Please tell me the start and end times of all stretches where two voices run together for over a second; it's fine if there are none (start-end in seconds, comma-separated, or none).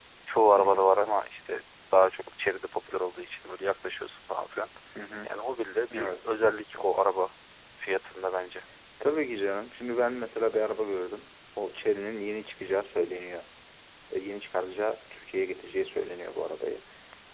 none